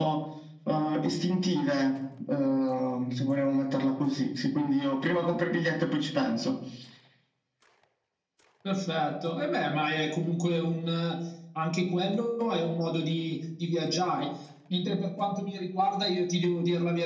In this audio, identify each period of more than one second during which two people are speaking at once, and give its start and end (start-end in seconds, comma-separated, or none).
none